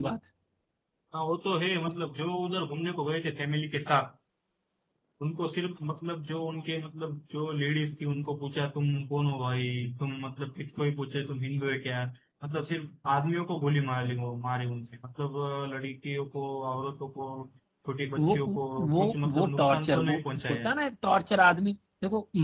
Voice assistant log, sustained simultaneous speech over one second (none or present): present